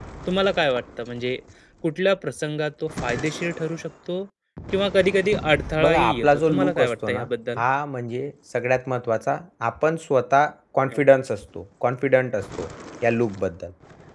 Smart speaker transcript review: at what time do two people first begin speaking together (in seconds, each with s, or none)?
5.8 s